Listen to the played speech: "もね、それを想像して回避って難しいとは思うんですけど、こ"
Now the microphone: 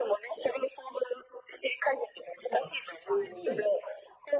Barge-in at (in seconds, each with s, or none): 2.5 s